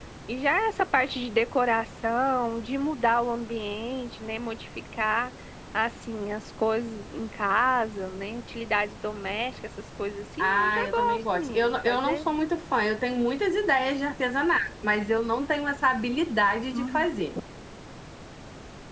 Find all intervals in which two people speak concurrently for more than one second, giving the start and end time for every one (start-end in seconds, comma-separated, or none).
10.4-12.2